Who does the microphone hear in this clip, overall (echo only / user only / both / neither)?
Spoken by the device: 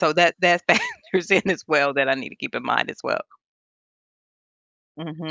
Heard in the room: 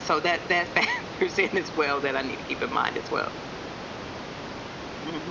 echo only